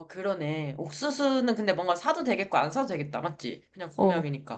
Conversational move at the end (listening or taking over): taking over